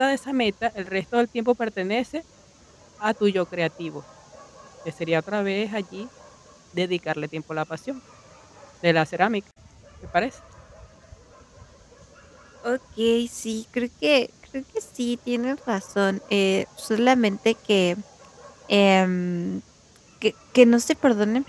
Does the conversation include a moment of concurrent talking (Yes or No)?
No